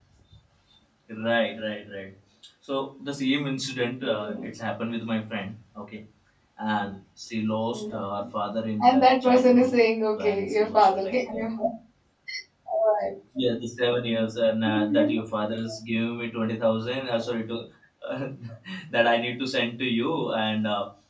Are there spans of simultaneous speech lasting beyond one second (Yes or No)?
Yes